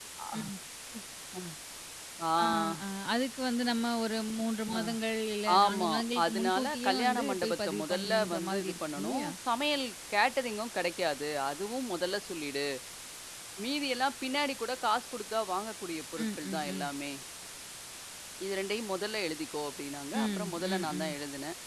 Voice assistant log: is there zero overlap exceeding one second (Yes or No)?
No